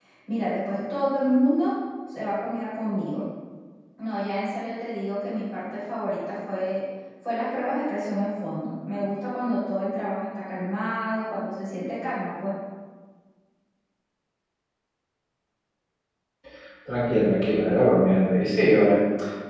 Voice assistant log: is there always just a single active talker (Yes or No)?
Yes